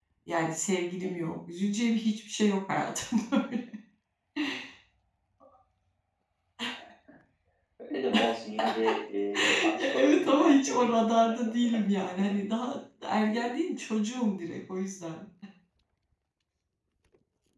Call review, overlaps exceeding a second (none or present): present